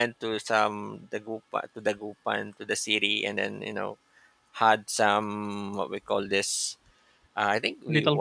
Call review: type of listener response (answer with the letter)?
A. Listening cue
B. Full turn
A